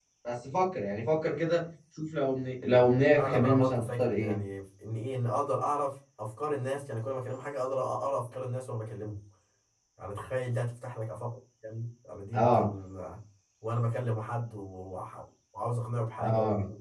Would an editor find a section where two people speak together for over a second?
Yes, from 3.2 s

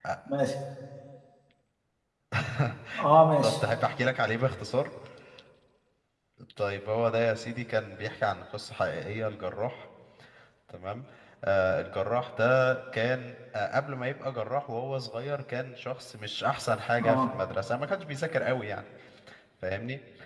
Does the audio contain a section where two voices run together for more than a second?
No

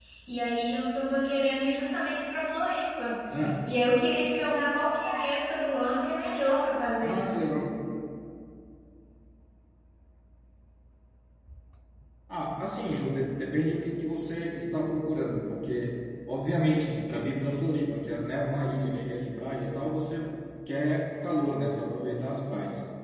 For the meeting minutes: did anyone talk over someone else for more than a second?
No

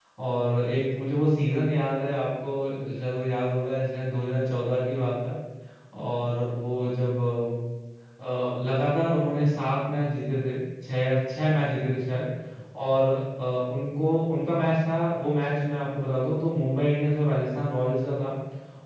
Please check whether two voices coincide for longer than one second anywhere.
No

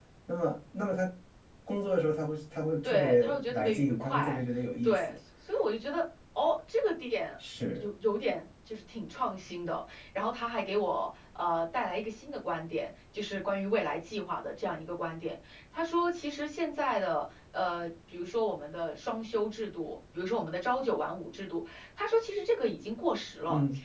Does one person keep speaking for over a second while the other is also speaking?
Yes, from 2.8 s

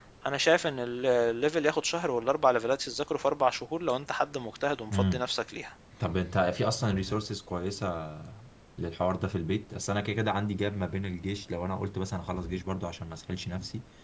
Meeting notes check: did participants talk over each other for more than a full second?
No

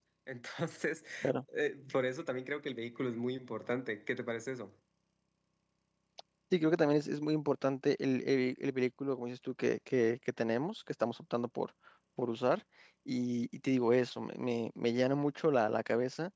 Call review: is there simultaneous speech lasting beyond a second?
No

